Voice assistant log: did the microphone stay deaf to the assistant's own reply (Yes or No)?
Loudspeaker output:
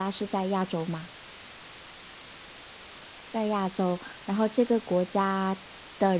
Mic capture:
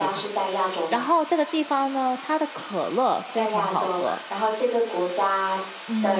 No